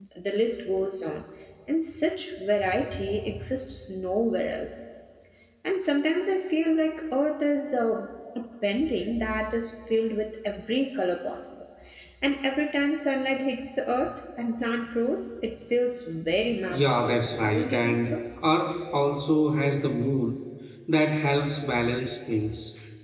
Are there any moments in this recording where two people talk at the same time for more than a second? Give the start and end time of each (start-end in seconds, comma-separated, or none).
16.7-18.2